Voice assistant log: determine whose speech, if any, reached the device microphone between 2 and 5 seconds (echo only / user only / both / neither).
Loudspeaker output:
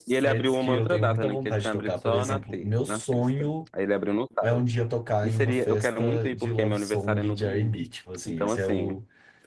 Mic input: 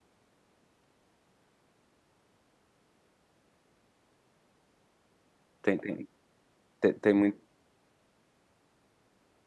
neither